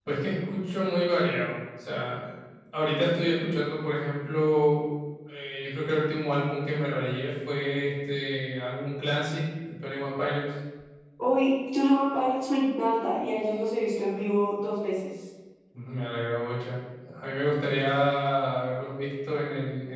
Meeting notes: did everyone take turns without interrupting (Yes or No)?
Yes